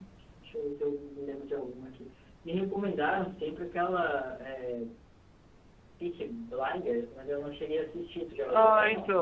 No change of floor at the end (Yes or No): No